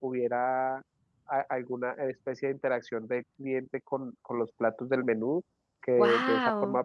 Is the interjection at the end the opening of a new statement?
No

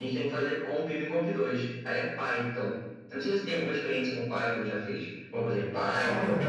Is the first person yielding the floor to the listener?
Yes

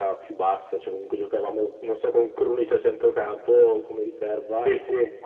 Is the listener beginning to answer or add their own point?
No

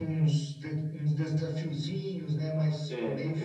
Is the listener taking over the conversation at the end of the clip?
Yes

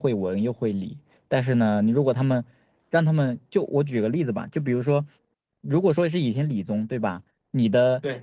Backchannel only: Yes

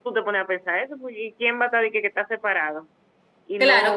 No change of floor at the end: No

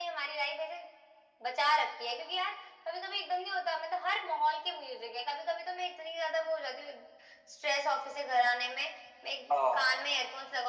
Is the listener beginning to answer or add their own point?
No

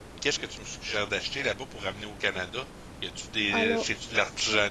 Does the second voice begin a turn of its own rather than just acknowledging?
No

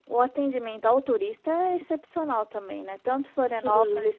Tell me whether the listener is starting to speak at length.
No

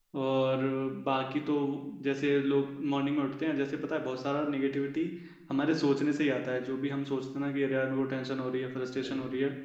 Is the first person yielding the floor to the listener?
No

